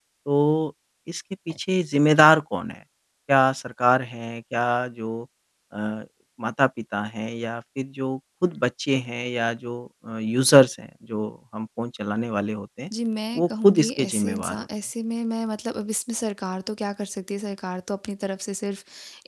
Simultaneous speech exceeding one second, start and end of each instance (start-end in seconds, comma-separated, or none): 13.4-14.7